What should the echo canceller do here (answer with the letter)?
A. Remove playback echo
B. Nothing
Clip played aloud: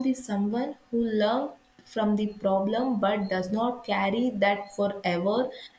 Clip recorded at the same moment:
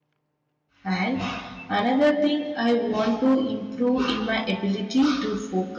B